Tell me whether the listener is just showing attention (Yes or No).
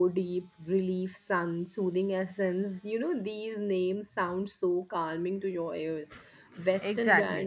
Yes